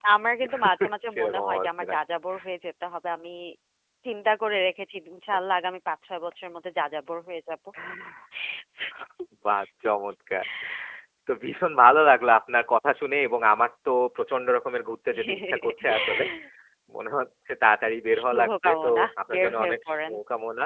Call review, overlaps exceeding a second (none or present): present